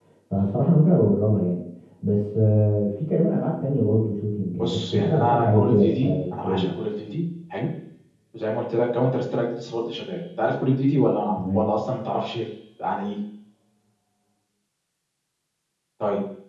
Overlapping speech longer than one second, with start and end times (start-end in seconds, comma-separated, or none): 4.6-6.7